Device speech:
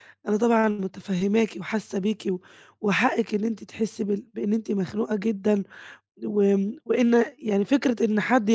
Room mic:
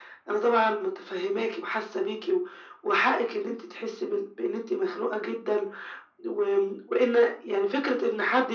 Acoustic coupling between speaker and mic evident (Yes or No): Yes